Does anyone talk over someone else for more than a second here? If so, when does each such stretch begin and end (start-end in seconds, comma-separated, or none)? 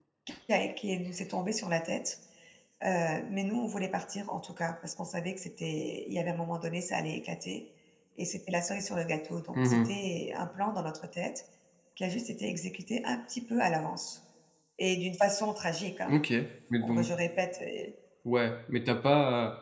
none